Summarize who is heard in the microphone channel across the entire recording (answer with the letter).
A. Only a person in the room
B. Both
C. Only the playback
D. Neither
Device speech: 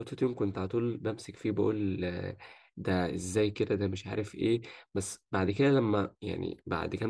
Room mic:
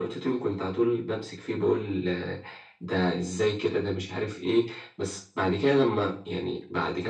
C